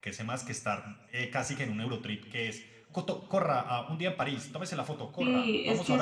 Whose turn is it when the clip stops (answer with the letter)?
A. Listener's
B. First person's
A